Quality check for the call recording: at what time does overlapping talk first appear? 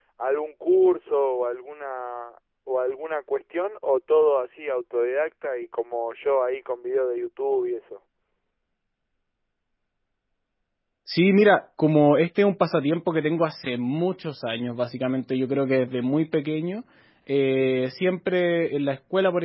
none

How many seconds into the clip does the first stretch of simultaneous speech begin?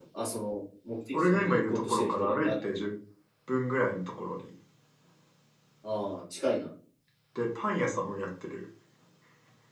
1 s

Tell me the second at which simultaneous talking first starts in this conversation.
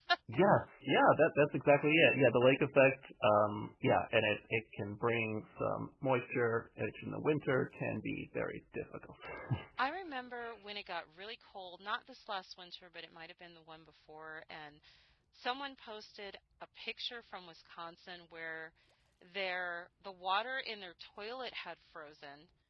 none

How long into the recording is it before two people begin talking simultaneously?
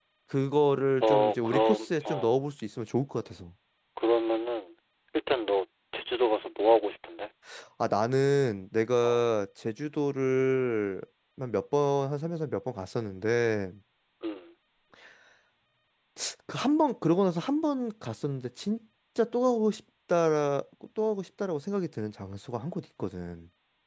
1 s

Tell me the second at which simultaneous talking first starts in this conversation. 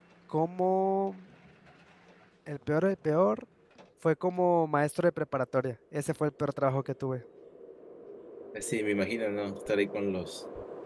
none

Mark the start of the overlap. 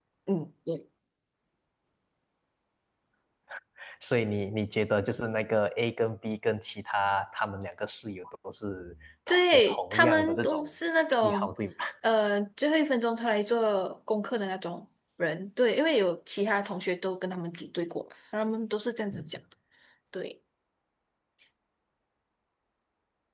9 s

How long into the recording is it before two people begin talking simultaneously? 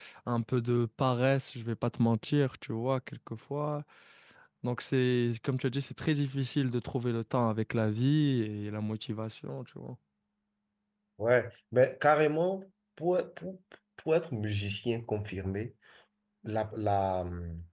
none

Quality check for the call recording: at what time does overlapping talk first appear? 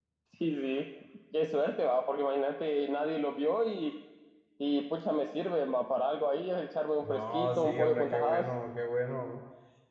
7 s

